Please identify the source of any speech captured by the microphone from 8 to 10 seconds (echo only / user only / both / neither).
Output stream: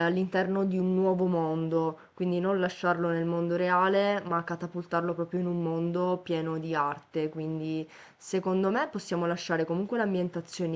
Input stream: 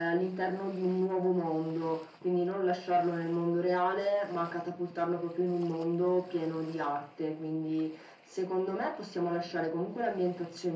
echo only